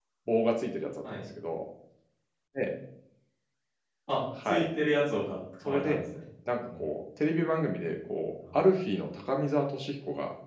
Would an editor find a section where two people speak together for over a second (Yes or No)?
No